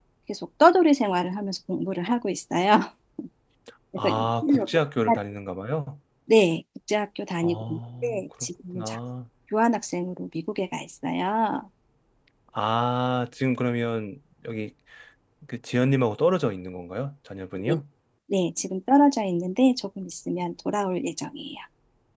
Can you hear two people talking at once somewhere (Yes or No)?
Yes